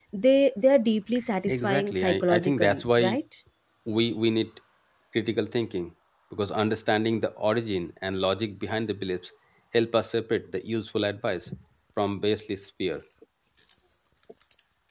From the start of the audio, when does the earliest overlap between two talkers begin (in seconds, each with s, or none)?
1.5 s